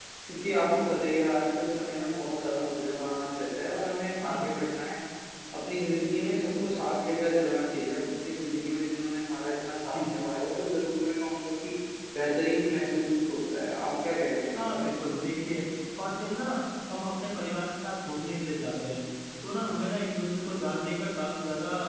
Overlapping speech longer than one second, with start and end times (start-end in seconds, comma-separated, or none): none